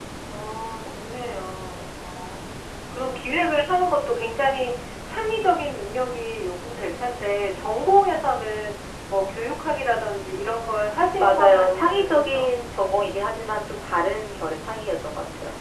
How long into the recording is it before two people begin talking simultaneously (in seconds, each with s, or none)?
11.2 s